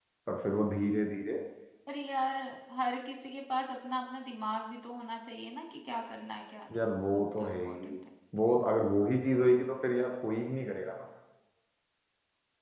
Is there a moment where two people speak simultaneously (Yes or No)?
Yes